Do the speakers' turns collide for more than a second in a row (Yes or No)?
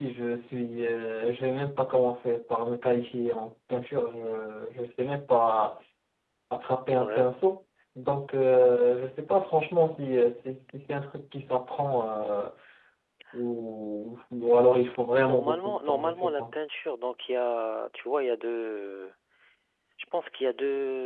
Yes